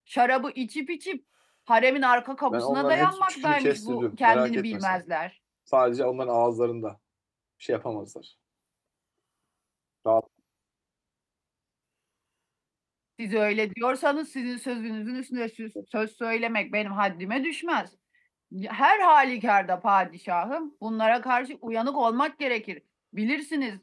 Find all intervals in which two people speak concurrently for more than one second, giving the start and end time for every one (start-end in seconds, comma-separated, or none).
2.5-5.0